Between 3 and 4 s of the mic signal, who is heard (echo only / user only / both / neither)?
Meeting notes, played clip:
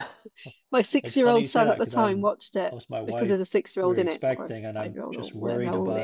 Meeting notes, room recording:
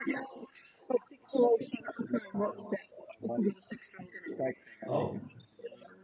echo only